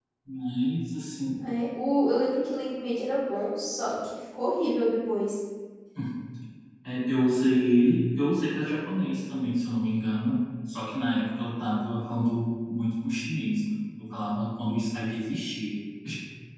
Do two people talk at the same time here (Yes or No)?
No